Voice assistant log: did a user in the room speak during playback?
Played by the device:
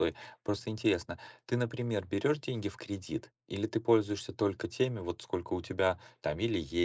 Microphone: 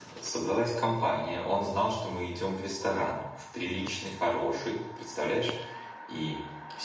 Yes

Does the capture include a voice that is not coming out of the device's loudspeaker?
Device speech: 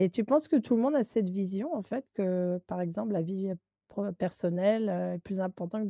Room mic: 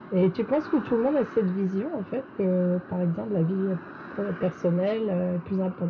No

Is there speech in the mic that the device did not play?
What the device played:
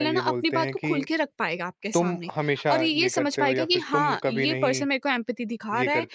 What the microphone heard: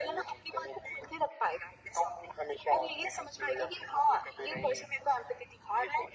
No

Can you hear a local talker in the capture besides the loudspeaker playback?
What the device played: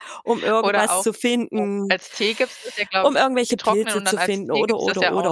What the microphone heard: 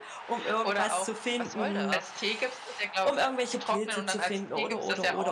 Yes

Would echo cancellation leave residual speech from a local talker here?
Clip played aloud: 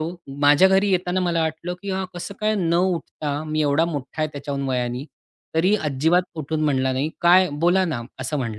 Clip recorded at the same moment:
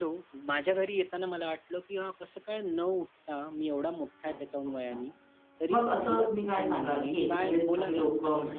Yes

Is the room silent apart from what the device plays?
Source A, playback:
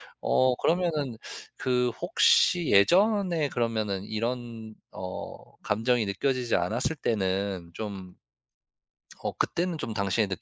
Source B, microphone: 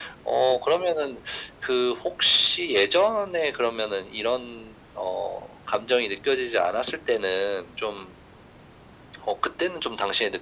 Yes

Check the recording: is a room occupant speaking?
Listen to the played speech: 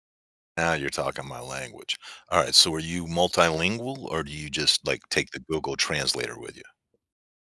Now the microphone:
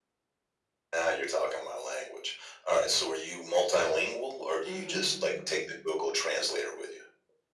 Yes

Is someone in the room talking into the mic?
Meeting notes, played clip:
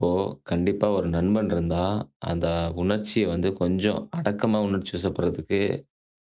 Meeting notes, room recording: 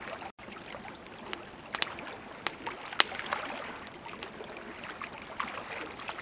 No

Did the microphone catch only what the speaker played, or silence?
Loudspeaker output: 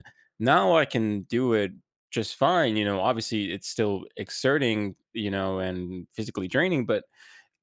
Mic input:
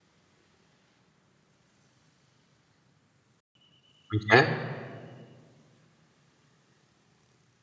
No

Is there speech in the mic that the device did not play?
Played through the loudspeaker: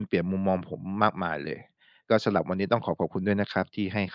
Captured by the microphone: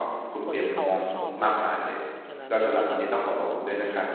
Yes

